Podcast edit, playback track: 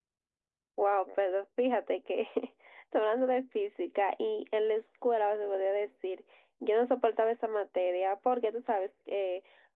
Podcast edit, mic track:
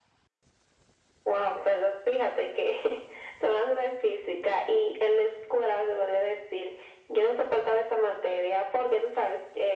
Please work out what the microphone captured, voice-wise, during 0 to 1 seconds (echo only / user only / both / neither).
neither